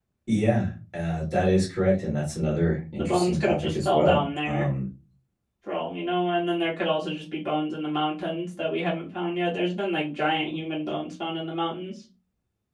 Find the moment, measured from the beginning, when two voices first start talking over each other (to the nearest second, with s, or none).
3 s